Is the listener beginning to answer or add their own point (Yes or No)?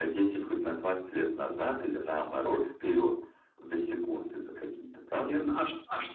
Yes